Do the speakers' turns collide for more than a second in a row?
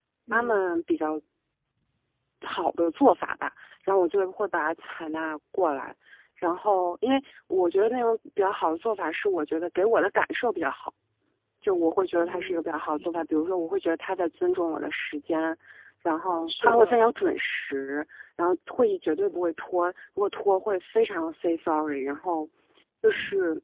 No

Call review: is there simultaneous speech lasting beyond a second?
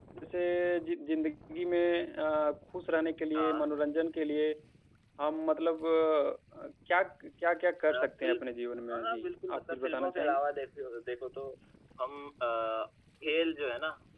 Yes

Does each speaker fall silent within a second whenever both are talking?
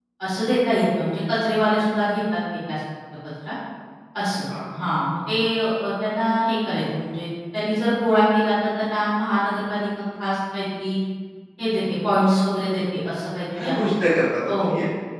Yes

